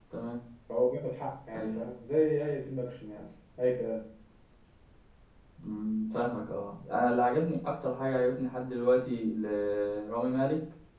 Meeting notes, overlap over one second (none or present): none